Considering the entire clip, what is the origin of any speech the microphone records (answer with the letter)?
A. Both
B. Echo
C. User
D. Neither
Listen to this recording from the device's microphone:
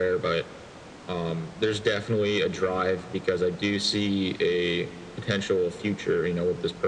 B